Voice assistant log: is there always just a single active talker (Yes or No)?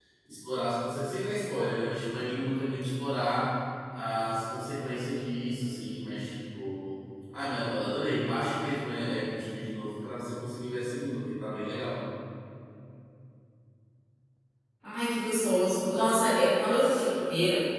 Yes